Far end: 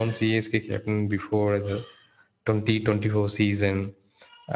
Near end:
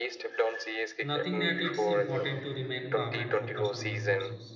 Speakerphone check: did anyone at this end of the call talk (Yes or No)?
Yes